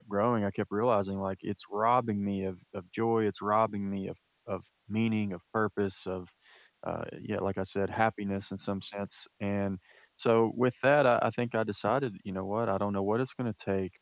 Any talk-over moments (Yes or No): No